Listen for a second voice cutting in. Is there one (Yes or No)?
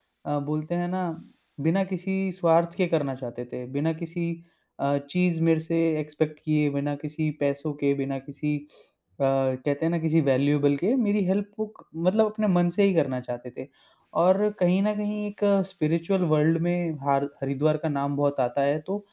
No